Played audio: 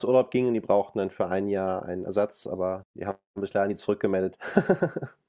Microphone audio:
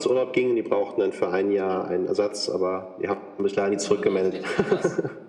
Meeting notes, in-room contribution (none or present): present